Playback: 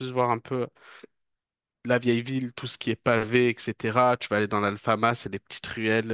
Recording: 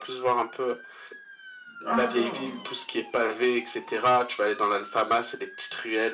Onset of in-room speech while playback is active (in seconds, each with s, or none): 1.8 s